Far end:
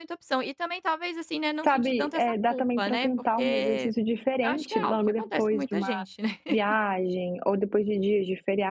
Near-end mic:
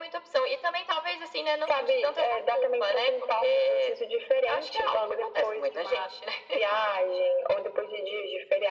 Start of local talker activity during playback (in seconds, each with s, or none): none